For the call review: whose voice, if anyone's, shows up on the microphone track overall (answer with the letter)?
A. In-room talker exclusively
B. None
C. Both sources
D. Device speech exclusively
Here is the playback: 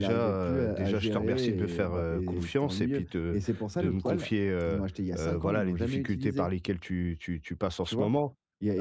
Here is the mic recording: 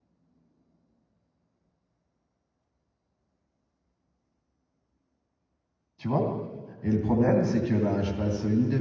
A